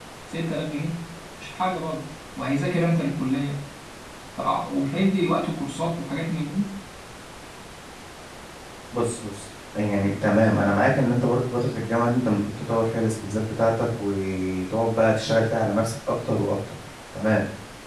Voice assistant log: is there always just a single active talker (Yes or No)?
Yes